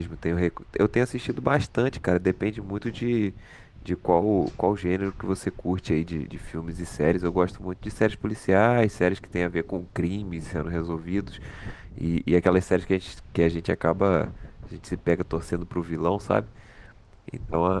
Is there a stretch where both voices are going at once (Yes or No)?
No